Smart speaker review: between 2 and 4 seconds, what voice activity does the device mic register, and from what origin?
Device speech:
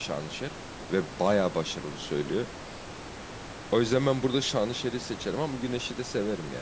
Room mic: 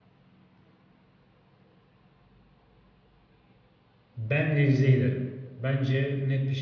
neither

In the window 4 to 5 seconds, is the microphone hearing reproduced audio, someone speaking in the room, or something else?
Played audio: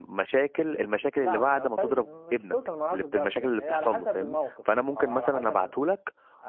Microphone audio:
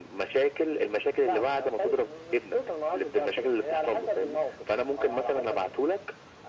echo only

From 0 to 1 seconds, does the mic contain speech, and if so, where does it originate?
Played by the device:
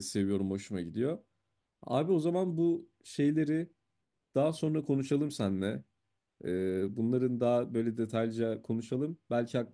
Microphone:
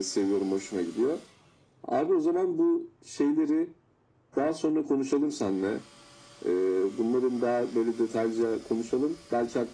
echo only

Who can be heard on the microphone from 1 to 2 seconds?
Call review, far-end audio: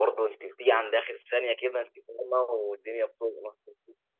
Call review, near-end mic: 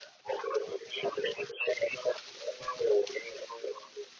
echo only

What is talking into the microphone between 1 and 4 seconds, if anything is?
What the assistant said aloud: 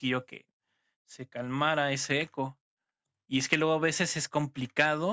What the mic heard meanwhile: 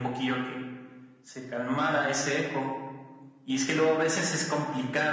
echo only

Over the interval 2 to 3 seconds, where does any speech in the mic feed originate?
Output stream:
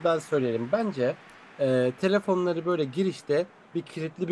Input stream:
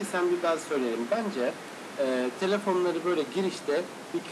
echo only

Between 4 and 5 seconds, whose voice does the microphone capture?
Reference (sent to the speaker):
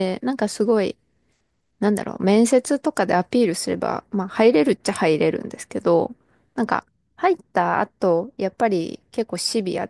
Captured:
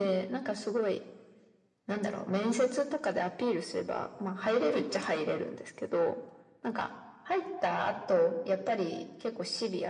echo only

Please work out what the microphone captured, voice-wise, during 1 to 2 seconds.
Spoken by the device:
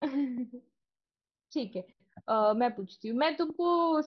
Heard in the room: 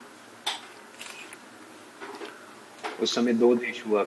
neither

